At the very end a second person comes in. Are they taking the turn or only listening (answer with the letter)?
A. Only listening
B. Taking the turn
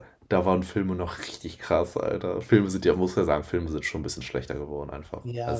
B